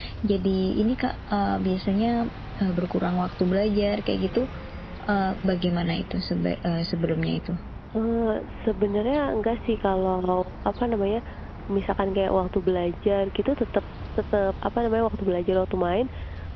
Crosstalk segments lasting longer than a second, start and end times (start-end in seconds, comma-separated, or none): none